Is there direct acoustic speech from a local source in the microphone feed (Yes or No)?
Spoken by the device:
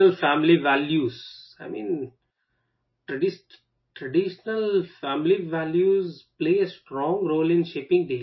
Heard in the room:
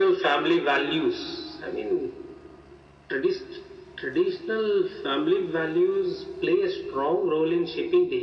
No